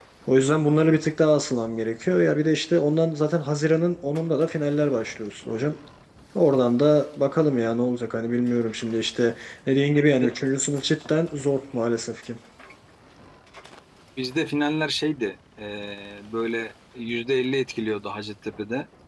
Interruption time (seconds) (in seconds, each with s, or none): none